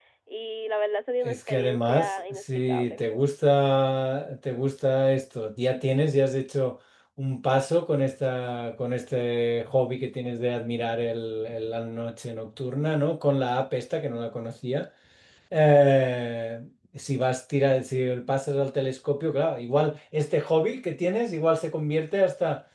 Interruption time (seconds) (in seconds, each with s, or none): 1.2 s